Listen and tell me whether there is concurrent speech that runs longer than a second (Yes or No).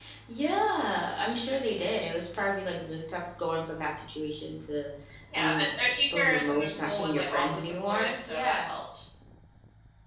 Yes